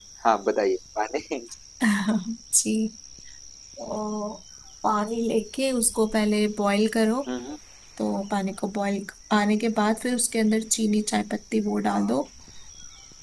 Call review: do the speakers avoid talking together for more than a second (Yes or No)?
Yes